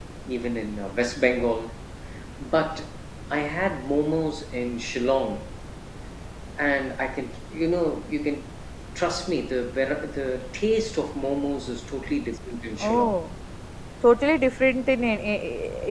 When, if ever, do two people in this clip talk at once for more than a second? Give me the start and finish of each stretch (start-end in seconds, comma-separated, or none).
none